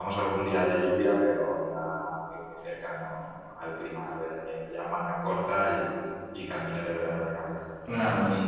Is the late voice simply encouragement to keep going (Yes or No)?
No